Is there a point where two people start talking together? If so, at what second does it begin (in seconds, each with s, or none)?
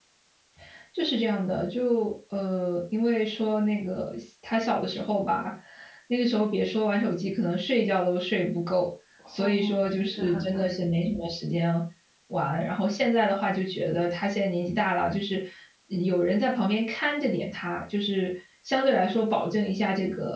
9.4 s